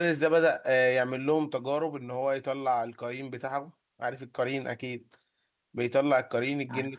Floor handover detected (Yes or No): No